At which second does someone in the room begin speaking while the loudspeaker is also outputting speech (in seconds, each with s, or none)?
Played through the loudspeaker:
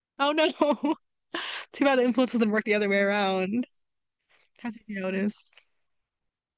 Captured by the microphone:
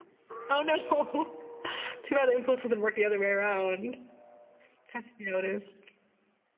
none